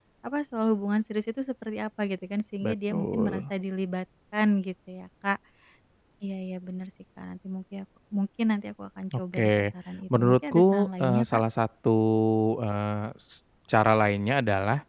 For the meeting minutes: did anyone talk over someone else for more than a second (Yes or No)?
Yes